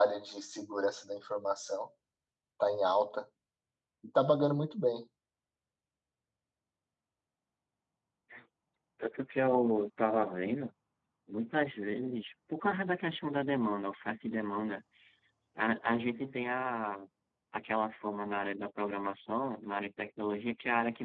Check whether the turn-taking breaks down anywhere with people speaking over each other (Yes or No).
No